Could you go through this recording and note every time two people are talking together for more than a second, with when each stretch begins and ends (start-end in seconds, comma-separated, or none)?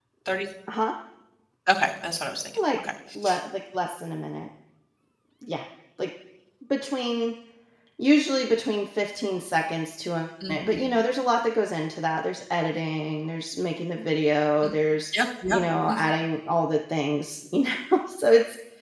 none